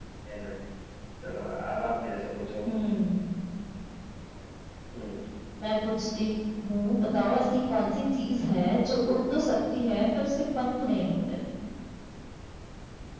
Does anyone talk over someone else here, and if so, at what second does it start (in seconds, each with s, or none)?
none